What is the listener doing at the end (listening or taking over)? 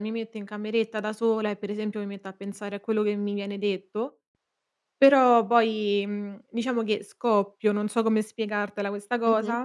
taking over